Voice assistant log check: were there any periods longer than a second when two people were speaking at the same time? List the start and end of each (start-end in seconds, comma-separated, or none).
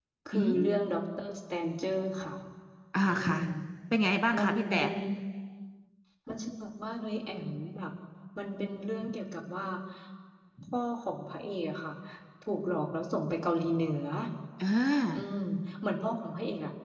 none